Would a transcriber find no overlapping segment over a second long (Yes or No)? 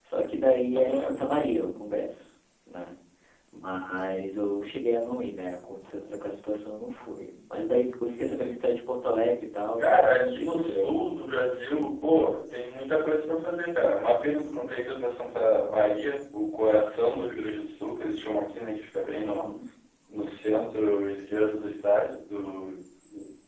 No